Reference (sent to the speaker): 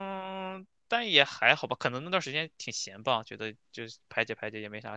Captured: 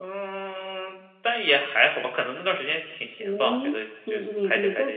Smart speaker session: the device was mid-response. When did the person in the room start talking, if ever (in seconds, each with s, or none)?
3.2 s